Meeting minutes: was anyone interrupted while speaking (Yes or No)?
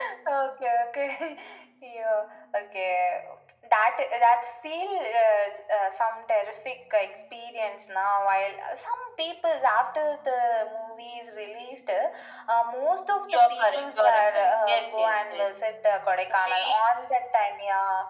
Yes